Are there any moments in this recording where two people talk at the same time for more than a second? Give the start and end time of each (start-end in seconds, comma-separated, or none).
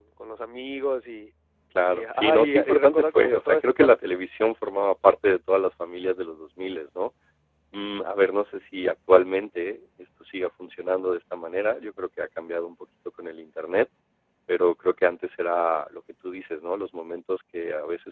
1.9-3.9